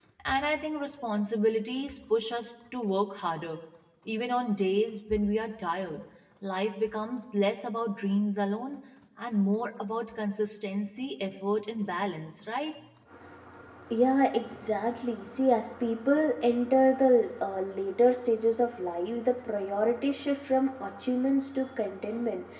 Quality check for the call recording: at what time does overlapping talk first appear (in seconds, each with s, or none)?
none